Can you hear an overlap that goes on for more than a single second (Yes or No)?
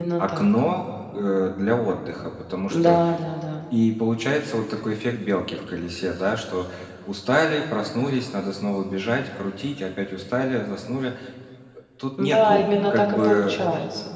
Yes